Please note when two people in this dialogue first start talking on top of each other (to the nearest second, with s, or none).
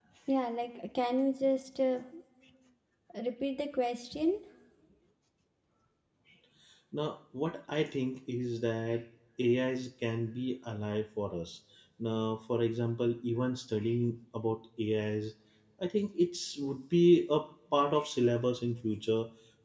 none